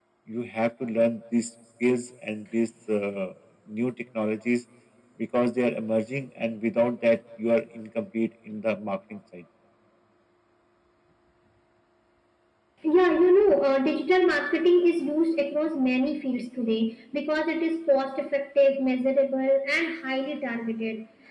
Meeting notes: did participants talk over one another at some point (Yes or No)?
No